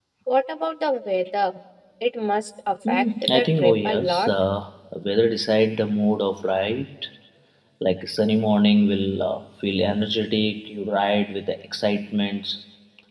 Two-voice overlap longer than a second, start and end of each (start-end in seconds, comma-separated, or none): 2.9-4.3